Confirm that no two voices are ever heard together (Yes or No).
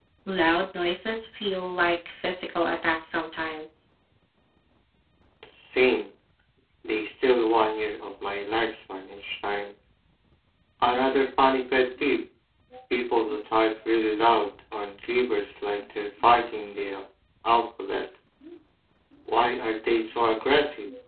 Yes